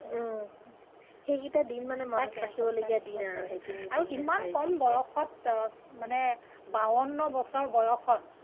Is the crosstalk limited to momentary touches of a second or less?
No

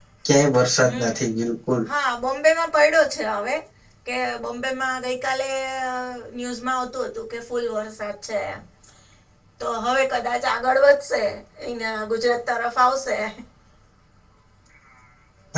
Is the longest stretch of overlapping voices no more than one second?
Yes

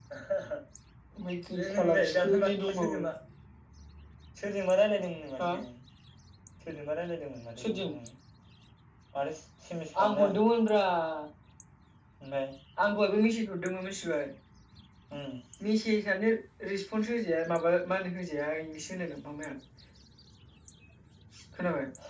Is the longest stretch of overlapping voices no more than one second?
No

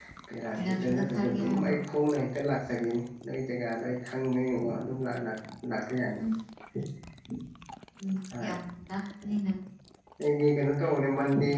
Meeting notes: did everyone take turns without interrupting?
No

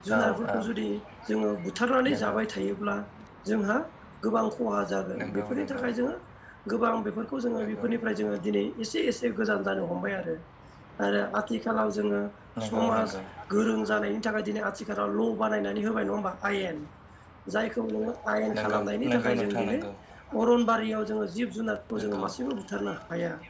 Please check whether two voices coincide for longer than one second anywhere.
Yes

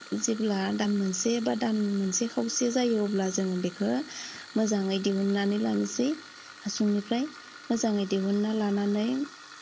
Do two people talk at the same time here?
No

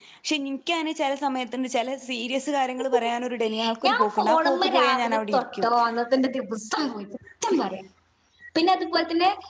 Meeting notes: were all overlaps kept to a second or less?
No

